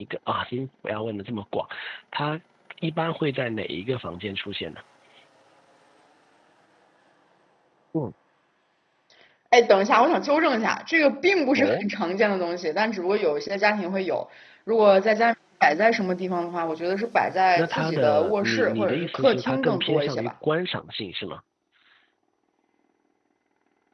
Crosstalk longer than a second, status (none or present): present